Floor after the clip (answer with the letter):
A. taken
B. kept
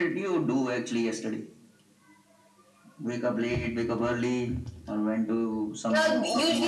A